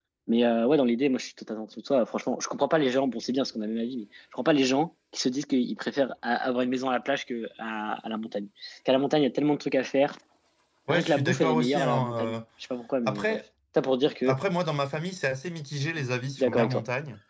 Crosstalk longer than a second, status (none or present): present